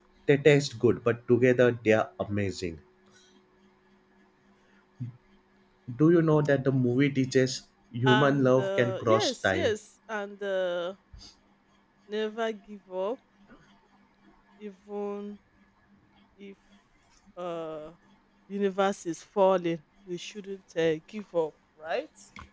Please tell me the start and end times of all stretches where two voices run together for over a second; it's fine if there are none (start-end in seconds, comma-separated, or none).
8.1-9.7